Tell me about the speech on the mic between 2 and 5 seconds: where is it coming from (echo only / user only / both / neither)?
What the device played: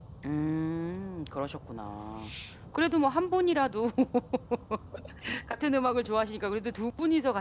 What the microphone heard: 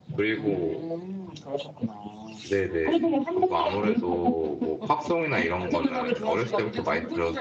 both